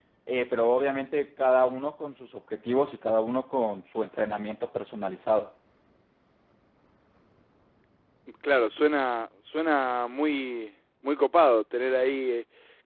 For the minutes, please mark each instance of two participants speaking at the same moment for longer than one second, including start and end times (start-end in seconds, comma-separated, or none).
none